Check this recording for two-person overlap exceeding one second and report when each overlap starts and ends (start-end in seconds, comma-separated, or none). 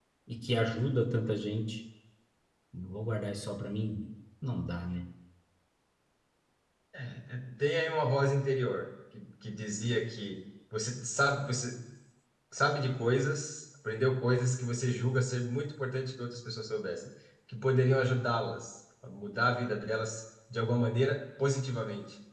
none